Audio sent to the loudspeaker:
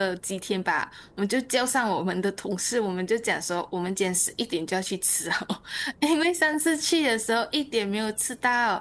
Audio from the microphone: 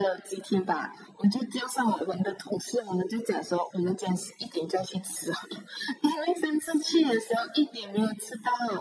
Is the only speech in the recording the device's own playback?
Yes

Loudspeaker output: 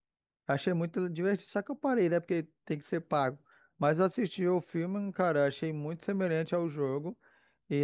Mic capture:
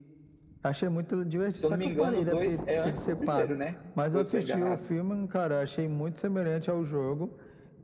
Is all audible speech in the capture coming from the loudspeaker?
No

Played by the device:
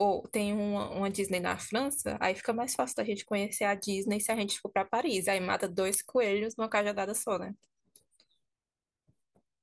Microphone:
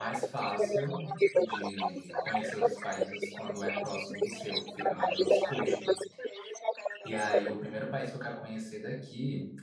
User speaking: Yes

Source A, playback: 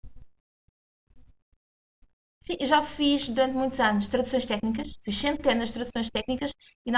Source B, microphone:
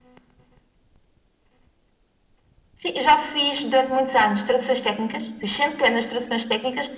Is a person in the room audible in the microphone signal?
No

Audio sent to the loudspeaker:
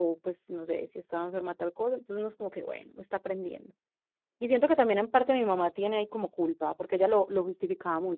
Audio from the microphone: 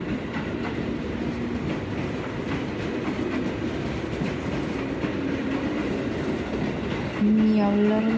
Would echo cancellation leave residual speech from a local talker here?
Yes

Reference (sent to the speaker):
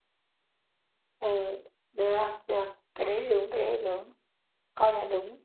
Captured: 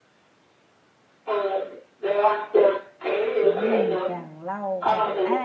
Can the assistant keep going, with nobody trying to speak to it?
No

